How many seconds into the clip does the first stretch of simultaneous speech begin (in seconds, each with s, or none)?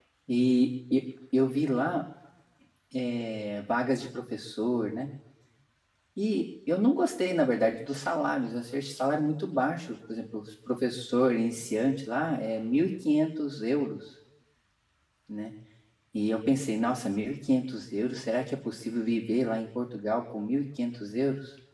none